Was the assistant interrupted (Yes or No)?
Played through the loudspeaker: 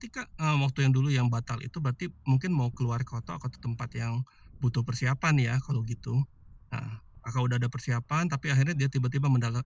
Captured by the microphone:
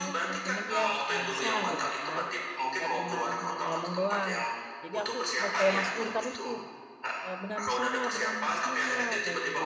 Yes